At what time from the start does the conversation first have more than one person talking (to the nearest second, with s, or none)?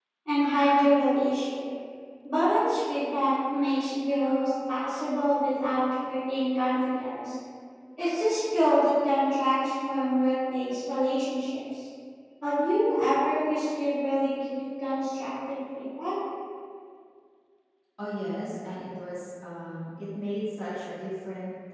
none